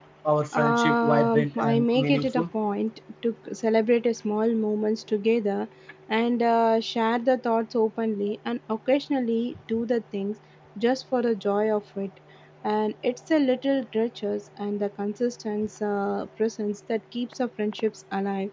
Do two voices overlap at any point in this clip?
Yes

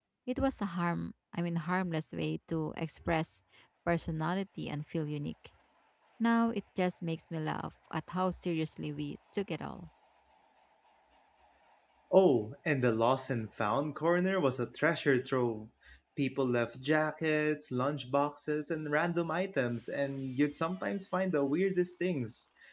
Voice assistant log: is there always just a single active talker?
Yes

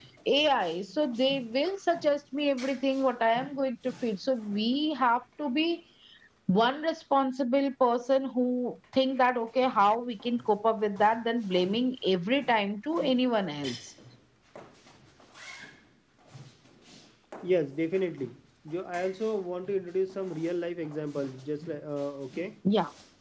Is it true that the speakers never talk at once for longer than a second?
Yes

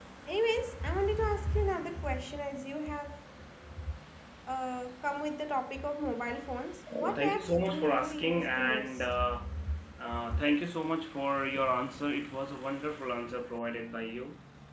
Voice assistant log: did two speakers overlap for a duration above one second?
Yes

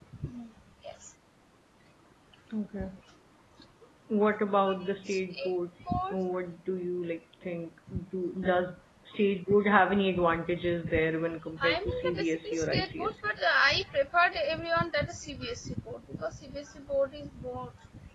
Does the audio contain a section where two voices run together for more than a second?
Yes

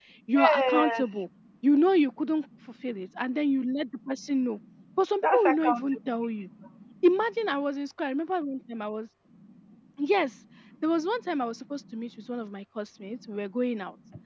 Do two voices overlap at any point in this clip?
Yes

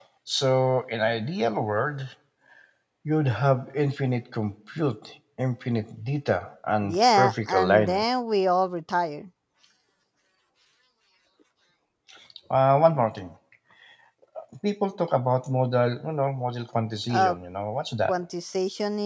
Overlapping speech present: Yes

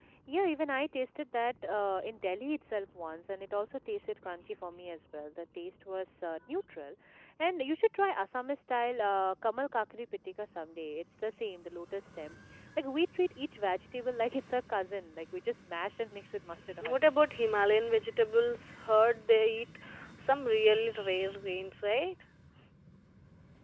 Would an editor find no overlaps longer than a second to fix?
Yes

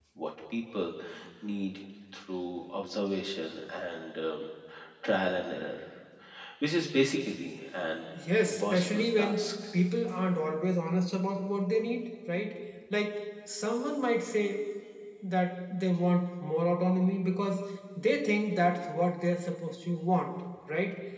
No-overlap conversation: No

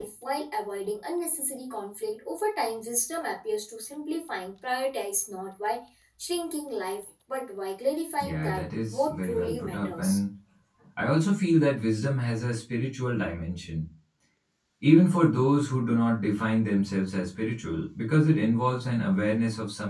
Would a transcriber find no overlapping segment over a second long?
No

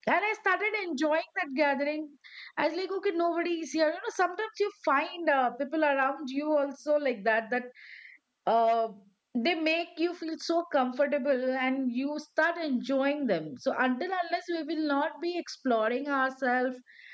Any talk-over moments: No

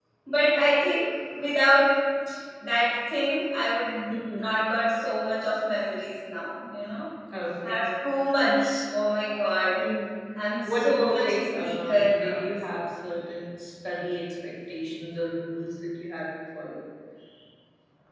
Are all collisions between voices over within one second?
No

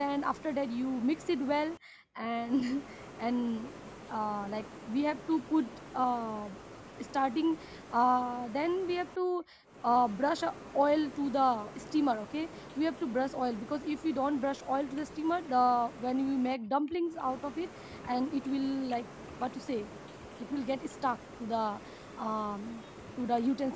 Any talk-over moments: No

